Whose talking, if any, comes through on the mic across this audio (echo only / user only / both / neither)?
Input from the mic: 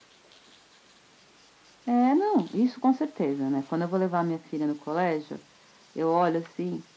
echo only